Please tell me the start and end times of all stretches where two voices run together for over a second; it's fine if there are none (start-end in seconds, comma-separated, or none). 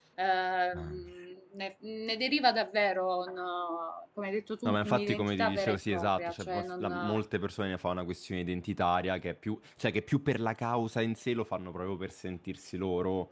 4.7-6.9